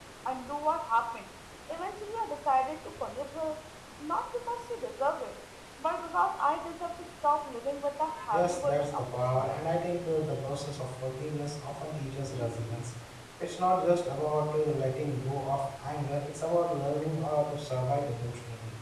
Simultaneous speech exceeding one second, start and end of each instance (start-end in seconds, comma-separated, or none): 8.3-9.6